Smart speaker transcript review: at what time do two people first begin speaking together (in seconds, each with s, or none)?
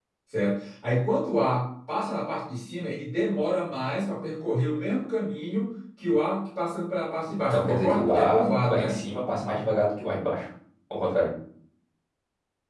7.4 s